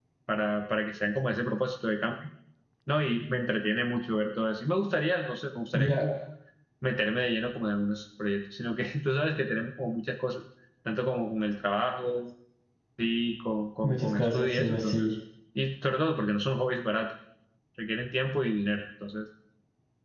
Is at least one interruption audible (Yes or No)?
Yes